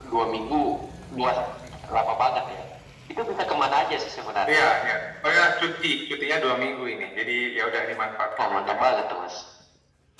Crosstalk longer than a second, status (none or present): none